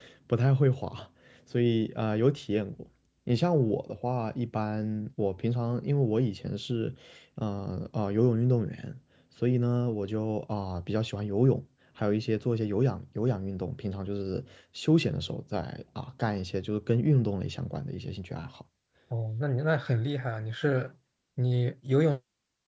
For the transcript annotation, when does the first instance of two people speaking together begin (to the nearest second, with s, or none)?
none